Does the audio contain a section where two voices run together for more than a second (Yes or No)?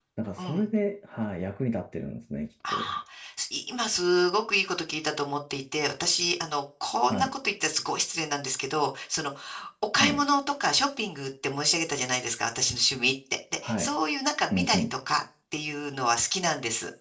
No